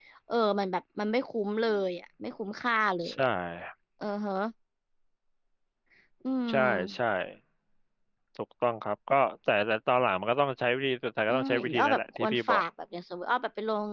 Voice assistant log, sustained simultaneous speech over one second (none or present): present